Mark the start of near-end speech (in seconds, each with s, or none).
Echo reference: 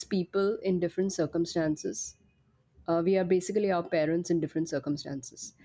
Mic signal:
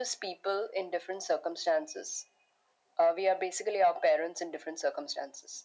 none